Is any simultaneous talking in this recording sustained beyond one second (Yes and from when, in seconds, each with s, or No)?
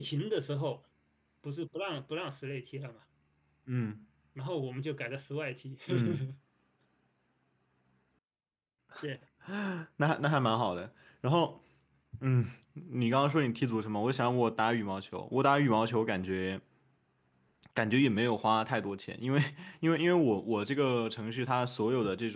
No